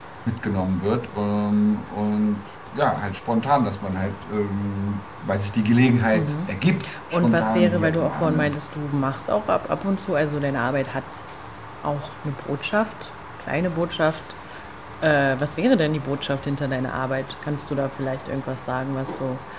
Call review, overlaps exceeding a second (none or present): present